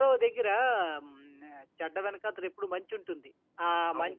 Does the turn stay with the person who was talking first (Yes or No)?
Yes